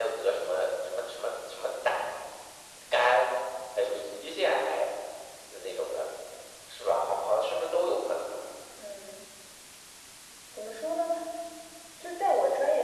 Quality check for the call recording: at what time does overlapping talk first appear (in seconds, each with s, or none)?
none